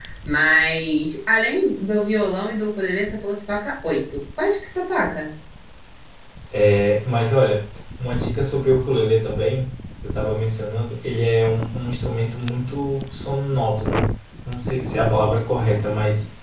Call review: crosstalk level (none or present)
none